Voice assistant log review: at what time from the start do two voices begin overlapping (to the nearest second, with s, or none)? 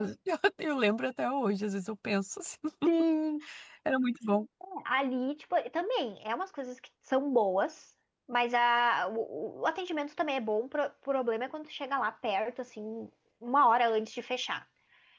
none